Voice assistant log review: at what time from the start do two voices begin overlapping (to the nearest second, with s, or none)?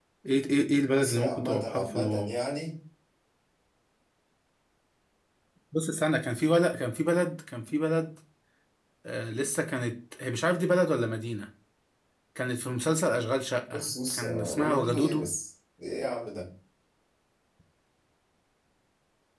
1 s